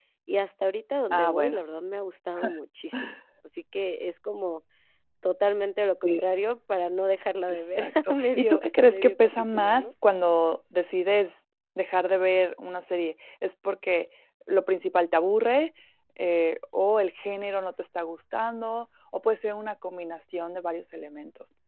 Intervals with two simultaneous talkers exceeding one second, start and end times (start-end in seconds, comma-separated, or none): 7.5-9.9